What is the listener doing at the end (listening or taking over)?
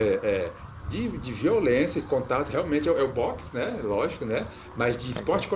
listening